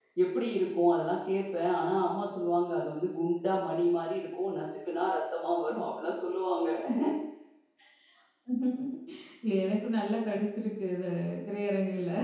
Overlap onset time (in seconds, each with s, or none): none